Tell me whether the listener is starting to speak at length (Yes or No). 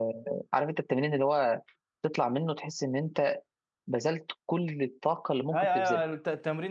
Yes